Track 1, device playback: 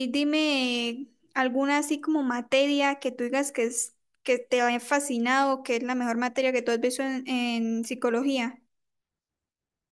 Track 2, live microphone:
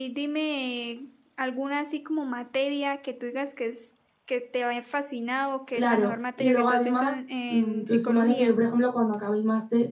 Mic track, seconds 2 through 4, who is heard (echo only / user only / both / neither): echo only